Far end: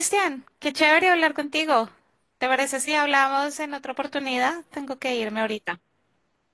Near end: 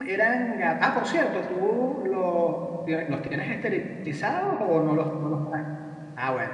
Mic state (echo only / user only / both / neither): user only